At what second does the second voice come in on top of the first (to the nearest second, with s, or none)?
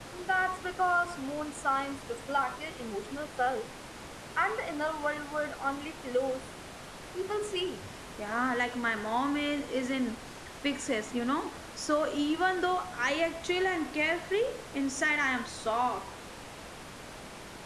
none